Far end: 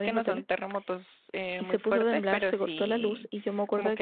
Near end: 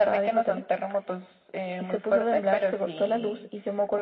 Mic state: echo only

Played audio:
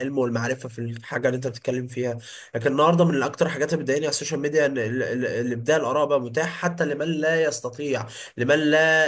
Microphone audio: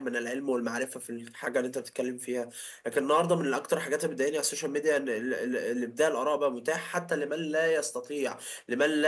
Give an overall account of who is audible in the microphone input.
echo only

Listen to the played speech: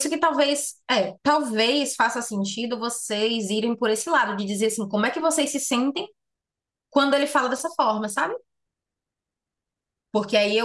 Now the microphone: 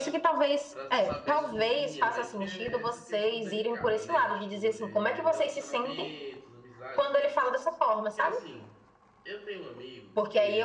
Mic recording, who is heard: both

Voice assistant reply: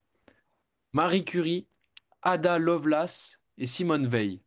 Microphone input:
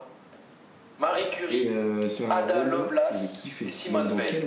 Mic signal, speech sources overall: both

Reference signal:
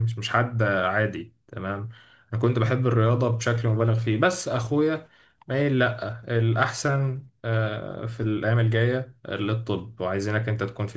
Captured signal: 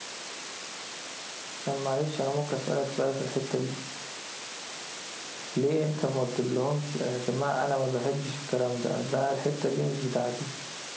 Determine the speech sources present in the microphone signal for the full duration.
user only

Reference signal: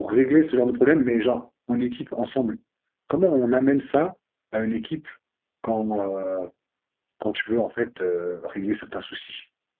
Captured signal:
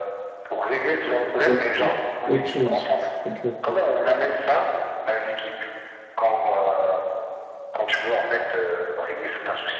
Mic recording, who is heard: both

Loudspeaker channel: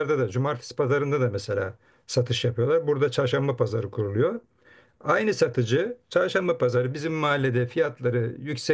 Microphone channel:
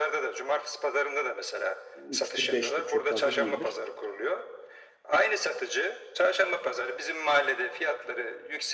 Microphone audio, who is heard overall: both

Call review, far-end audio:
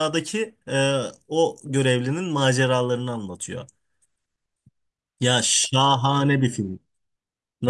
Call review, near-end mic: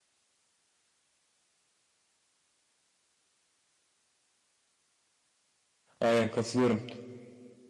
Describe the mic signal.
user only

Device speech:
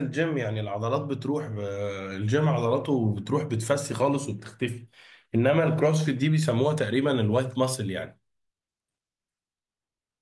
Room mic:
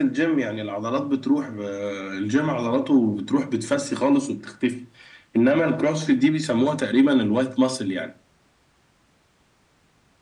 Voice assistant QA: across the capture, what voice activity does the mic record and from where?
echo only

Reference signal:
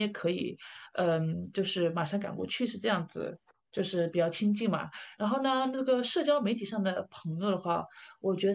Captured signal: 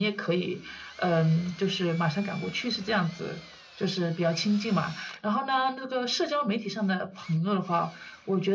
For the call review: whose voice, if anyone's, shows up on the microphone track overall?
echo only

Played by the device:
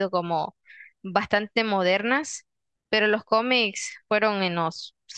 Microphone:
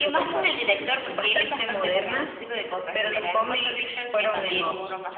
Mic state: both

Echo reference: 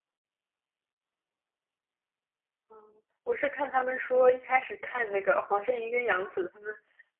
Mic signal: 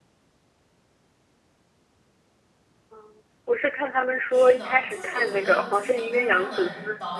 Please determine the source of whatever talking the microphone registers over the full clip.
both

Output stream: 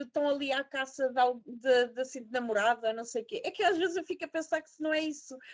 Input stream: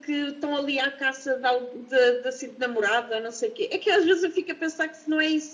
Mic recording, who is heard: echo only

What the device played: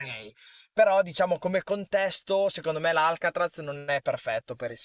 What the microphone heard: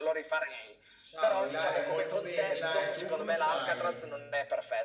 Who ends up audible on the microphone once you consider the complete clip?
both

